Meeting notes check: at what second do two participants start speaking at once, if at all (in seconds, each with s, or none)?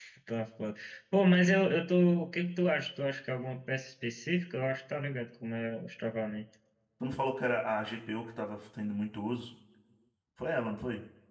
none